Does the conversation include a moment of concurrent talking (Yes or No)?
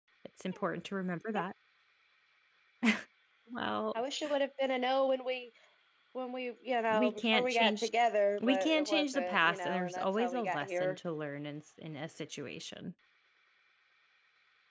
Yes